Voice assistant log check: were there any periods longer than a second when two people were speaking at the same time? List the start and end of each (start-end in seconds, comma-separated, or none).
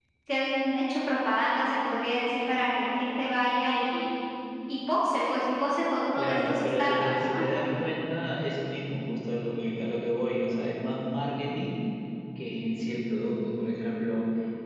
6.2-7.4